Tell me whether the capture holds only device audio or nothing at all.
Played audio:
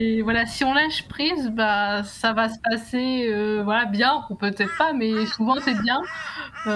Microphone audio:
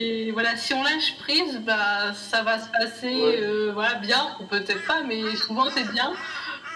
No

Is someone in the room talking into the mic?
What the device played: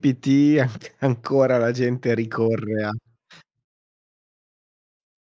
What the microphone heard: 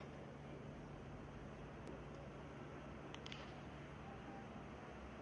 No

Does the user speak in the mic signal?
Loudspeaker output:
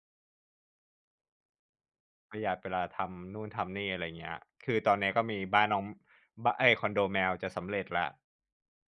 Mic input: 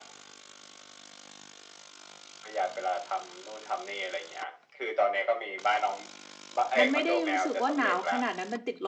Yes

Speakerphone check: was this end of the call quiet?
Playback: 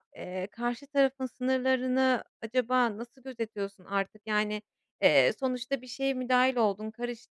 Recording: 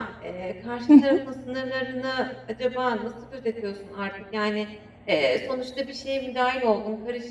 No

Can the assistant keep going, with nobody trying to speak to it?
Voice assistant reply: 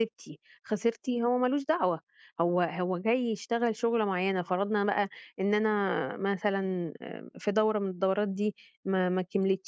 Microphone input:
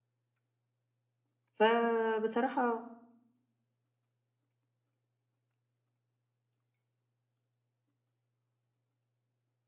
No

